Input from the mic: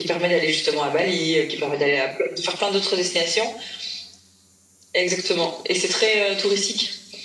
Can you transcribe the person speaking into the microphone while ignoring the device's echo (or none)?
none